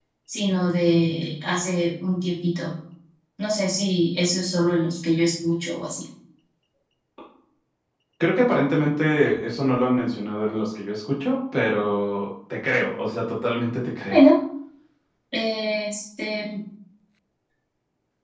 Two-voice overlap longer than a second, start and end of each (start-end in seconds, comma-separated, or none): none